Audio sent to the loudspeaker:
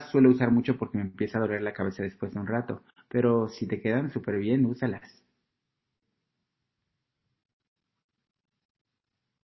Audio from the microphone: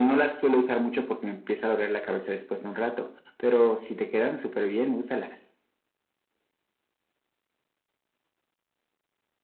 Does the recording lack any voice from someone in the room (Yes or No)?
Yes